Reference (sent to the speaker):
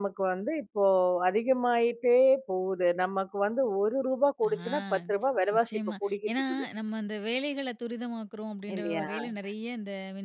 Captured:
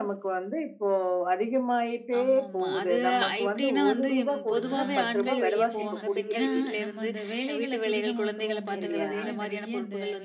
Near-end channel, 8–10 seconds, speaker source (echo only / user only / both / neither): both